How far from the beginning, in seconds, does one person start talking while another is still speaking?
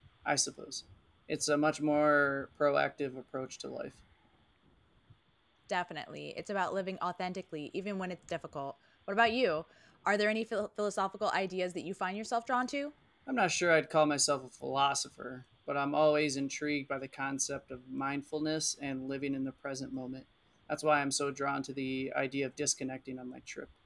none

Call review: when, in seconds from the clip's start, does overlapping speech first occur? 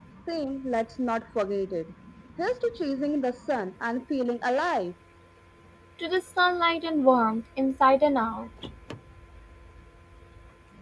none

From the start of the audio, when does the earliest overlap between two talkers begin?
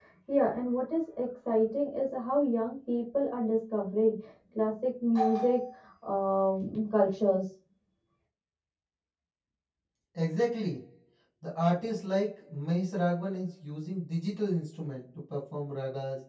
none

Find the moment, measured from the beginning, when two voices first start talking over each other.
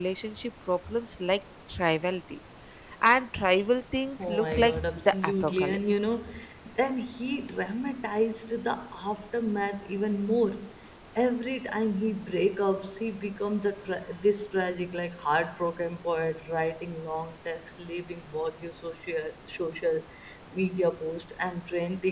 4 s

